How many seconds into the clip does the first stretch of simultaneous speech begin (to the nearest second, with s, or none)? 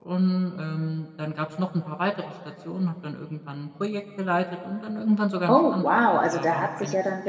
5 s